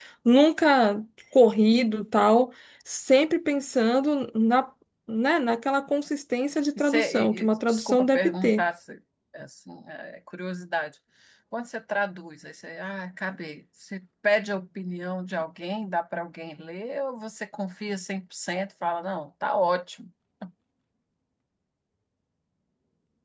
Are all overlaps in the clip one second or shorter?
No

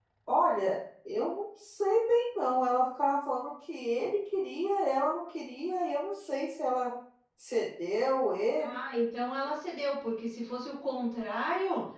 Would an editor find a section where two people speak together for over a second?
No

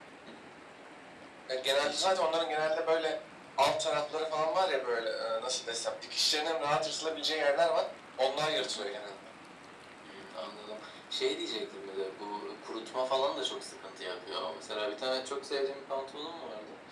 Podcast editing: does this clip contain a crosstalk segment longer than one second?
No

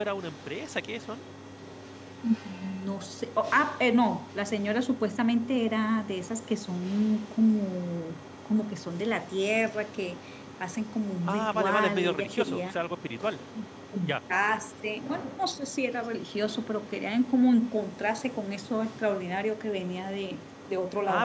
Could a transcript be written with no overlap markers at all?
No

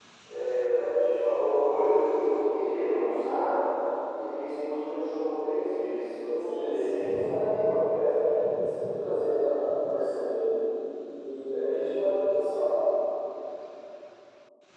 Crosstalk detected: Yes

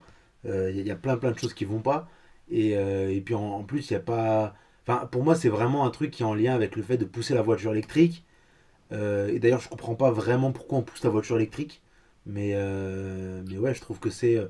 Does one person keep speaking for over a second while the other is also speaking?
No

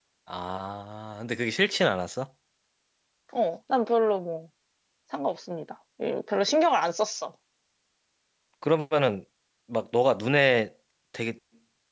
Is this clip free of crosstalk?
Yes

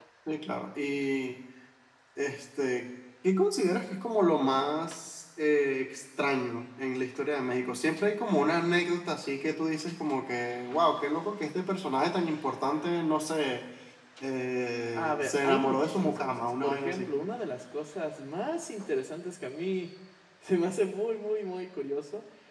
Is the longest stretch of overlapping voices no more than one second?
No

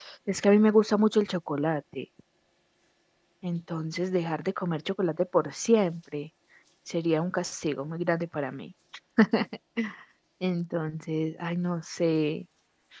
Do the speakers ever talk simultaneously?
No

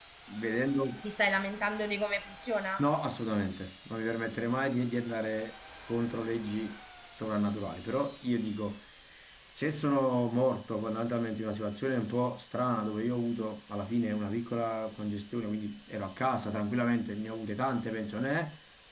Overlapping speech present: No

